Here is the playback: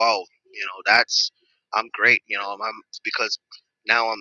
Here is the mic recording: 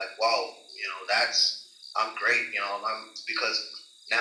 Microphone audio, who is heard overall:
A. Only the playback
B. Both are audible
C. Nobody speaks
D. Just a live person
A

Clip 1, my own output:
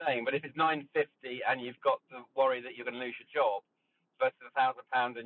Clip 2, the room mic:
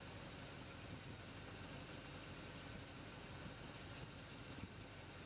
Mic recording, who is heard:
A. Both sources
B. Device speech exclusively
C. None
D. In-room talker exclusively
C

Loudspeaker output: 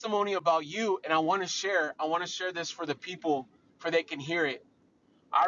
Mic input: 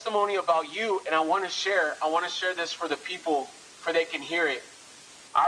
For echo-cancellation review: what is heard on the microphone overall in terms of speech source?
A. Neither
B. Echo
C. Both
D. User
B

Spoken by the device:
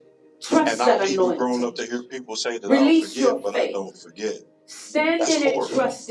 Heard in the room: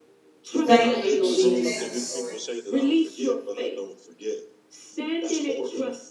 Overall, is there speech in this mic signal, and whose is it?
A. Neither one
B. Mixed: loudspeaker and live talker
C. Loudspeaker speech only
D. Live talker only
B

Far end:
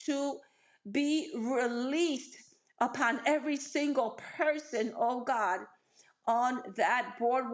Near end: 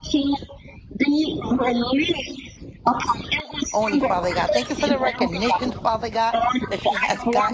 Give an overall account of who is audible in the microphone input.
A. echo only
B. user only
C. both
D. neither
C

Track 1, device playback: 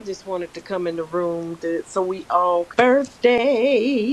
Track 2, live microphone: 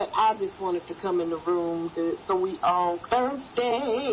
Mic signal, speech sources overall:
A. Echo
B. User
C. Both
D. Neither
A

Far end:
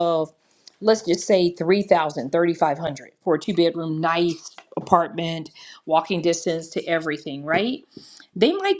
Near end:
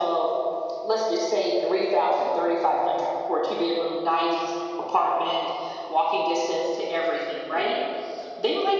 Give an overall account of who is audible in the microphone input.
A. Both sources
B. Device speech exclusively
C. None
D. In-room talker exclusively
B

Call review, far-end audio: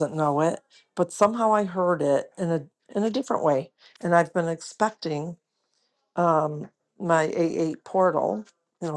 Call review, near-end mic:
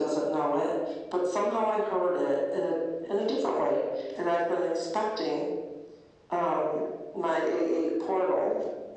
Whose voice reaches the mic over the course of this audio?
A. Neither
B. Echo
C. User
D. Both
B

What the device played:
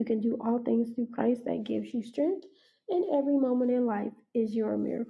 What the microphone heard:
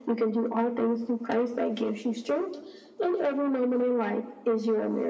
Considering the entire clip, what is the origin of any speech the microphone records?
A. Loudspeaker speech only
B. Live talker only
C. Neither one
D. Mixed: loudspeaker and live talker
A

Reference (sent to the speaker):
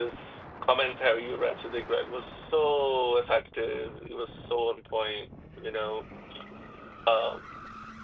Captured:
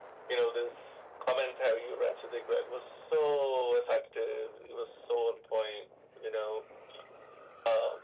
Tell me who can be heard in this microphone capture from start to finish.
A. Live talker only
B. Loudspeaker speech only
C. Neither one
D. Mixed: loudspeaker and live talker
B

